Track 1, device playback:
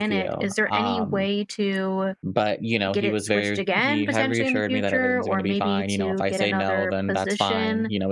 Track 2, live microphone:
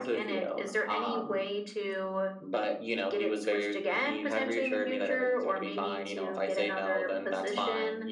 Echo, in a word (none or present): present